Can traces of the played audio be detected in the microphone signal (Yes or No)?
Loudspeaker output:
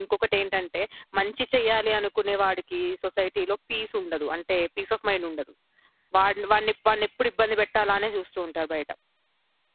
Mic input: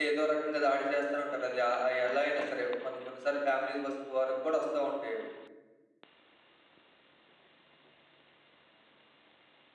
No